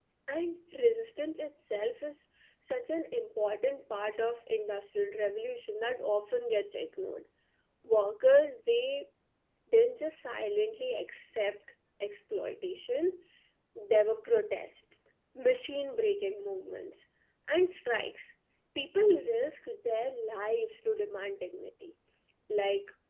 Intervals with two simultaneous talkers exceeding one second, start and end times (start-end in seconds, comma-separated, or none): none